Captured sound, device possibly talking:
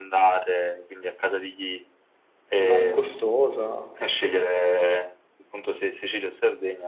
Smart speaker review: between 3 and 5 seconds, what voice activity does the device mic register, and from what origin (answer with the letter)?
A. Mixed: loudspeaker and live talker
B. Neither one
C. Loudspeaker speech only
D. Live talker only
A